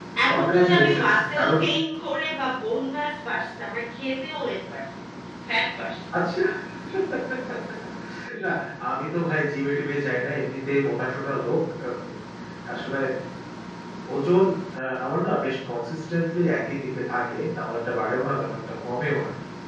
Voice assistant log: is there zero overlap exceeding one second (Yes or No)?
No